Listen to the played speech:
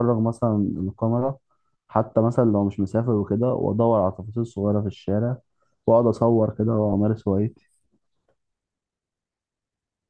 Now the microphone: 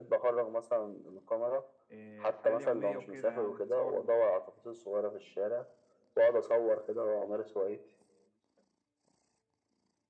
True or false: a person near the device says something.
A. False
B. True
B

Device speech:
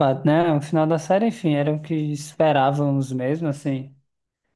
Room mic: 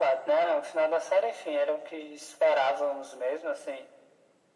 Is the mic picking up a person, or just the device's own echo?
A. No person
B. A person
A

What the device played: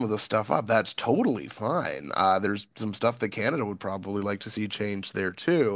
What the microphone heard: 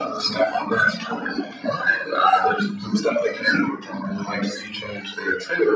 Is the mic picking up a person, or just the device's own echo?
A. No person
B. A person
A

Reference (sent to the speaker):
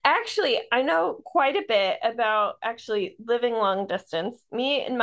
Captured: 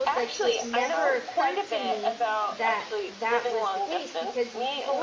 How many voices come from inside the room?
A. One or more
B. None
A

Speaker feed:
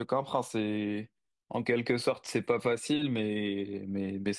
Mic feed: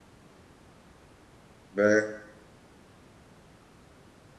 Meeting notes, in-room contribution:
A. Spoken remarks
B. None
A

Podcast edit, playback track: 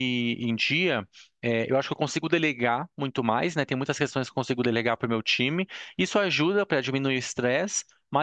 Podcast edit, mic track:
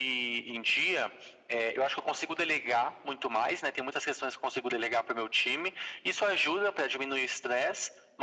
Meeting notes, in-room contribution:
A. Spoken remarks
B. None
B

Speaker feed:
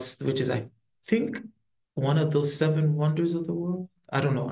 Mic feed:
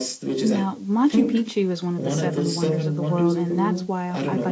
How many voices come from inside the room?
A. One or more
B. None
A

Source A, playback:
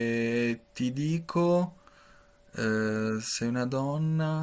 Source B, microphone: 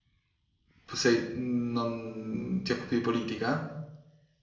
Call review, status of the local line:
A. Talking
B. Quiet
A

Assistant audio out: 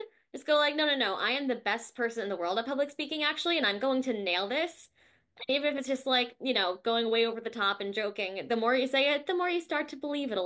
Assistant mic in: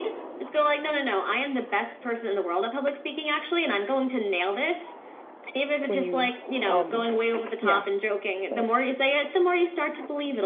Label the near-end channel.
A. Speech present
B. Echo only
A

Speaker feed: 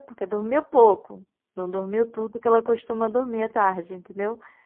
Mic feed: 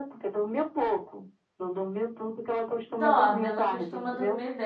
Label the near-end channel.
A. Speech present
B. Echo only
A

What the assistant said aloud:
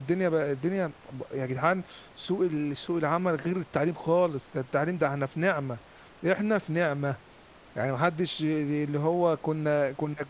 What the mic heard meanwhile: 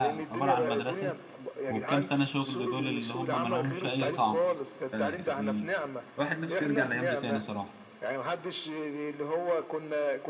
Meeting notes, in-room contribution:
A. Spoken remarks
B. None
A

